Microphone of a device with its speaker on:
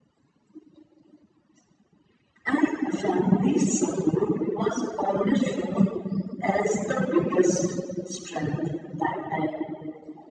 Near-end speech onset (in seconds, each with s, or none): none